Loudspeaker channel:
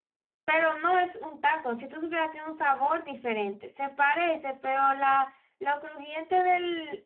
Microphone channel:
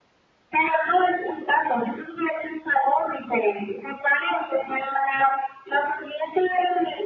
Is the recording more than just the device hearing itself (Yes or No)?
No